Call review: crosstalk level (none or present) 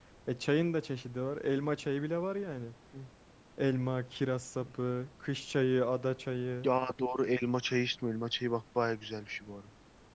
none